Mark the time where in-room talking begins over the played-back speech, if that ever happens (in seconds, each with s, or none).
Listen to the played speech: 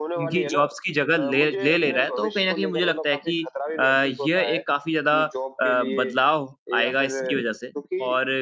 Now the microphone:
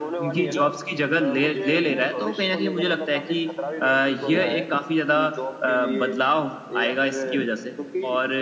4.2 s